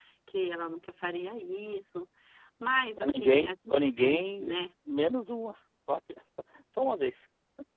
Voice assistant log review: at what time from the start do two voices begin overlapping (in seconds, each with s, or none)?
3.0 s